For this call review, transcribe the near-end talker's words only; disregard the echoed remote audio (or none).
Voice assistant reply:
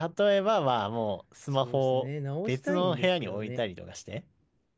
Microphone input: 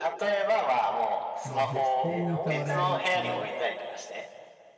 もう絶対に触らないっていう。